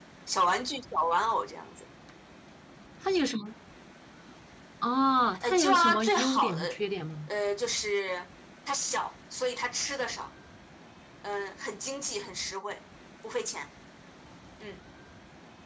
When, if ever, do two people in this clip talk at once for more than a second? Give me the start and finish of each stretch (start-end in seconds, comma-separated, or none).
5.4-6.8